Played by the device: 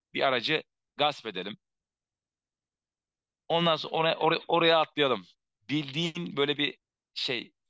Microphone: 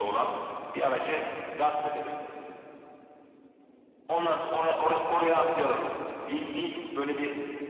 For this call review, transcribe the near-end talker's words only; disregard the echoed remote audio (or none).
none